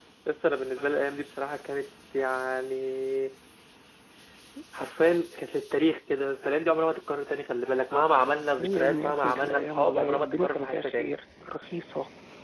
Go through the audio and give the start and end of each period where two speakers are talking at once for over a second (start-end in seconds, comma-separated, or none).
8.6-11.1